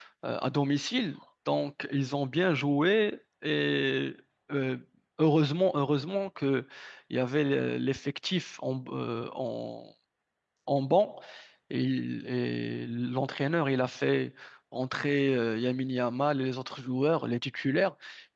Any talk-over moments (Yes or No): No